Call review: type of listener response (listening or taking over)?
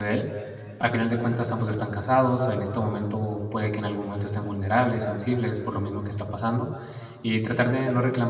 listening